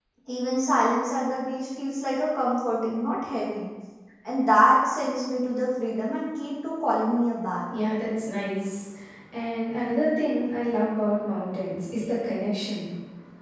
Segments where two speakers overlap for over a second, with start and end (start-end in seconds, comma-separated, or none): none